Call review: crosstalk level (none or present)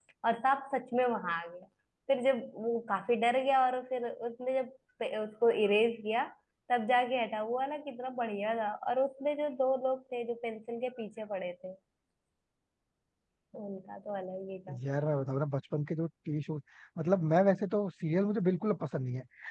none